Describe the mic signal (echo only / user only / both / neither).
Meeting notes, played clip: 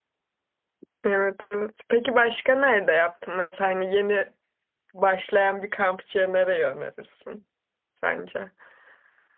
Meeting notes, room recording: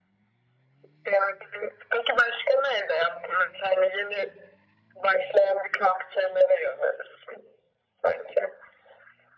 echo only